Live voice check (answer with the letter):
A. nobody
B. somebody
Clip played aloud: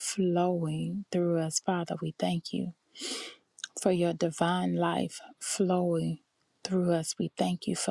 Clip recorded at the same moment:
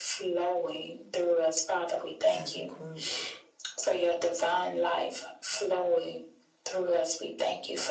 B